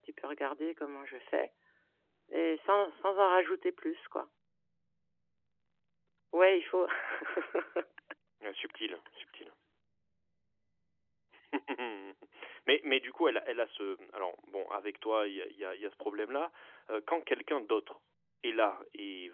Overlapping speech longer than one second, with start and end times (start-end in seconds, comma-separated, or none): none